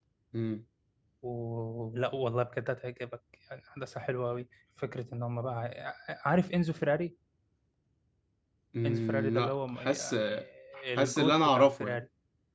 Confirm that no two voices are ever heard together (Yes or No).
No